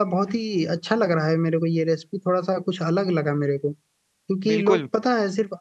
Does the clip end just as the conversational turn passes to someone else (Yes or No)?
No